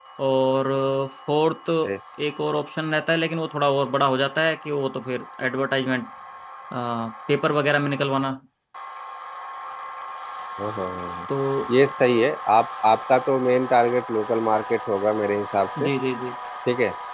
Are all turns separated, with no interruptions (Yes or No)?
Yes